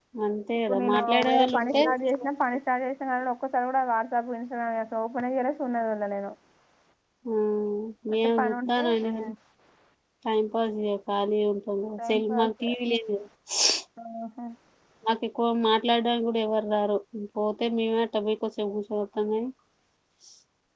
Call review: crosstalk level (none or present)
present